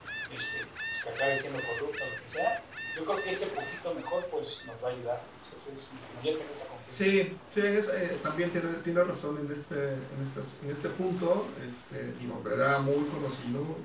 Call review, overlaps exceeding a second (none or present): none